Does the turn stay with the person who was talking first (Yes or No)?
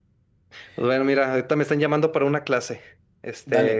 Yes